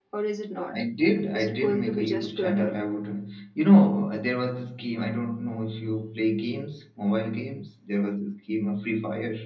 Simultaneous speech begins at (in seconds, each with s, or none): 1.3 s